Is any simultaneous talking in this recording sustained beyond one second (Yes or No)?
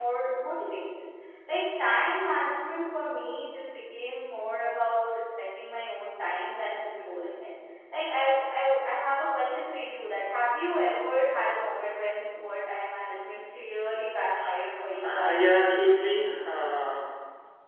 Yes